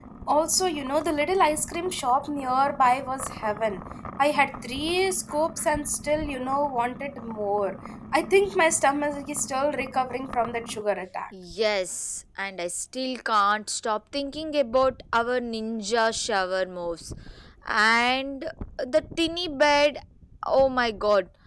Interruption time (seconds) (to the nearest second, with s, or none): none